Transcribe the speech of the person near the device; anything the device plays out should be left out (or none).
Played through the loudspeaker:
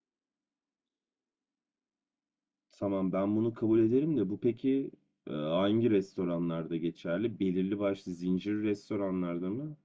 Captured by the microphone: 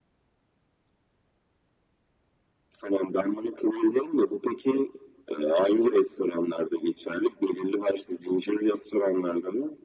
none